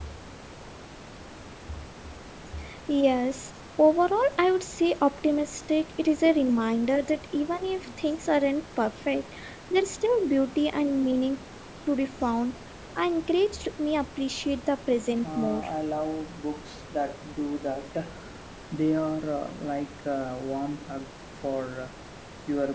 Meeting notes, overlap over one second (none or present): none